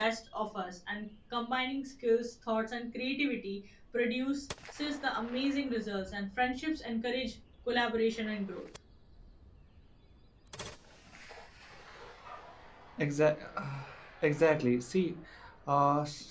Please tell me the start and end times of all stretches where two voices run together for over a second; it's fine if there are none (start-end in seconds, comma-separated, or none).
none